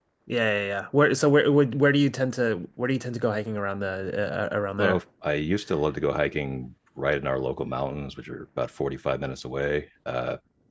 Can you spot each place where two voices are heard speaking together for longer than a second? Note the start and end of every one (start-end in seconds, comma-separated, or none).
none